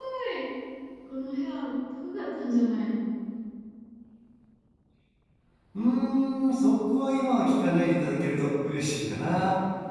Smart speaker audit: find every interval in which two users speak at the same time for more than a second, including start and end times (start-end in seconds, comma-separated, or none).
none